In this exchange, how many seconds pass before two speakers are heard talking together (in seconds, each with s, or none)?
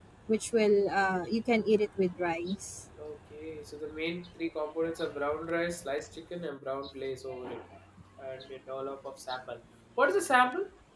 none